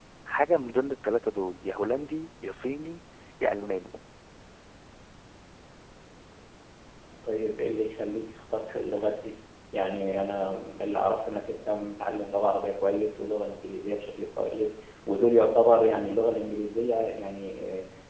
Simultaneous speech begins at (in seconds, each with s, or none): none